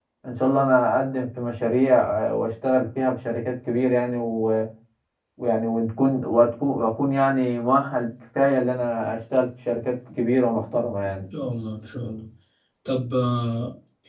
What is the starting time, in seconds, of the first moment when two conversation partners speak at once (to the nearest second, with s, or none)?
none